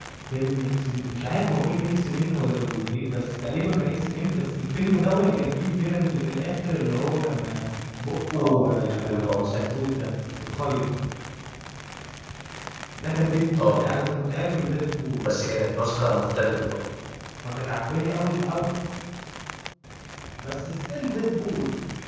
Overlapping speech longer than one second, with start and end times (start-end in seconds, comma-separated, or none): 8.4-9.8